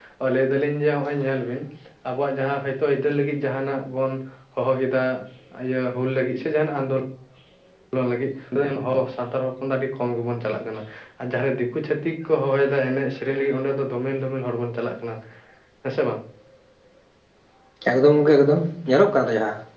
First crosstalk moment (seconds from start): none

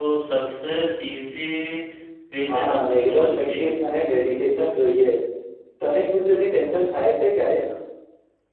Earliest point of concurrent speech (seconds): 2.5 s

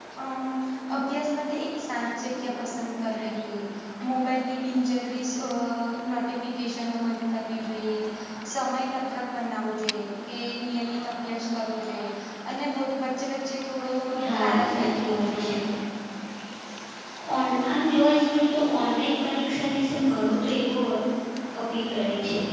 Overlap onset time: 14.1 s

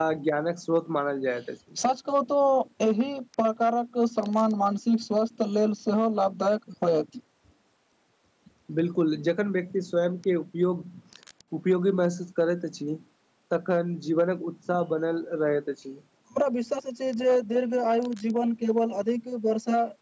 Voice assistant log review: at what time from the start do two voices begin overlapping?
none

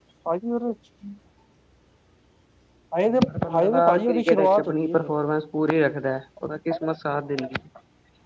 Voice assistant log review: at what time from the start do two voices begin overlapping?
3.5 s

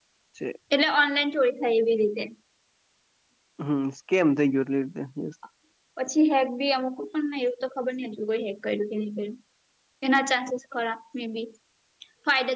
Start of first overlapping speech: none

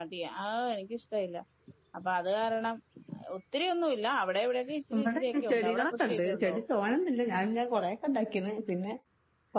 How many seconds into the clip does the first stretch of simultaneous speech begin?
4.9 s

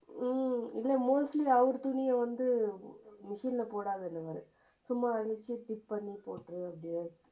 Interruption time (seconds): none

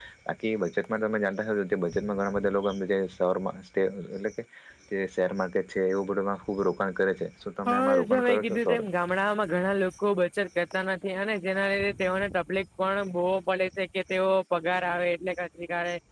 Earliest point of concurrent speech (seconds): 7.7 s

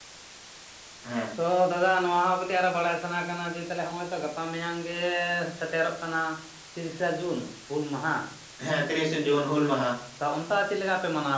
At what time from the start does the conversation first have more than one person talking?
none

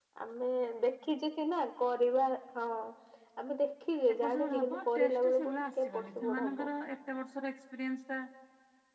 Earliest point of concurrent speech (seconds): 4.1 s

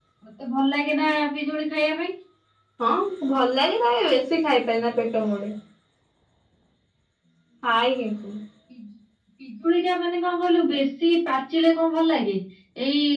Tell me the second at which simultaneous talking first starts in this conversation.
none

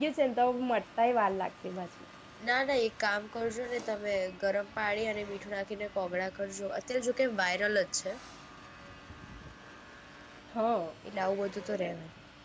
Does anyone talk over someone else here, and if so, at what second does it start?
none

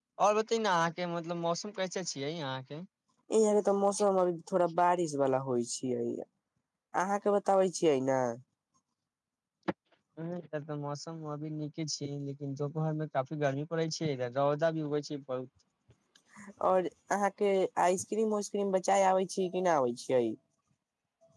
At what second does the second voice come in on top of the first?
none

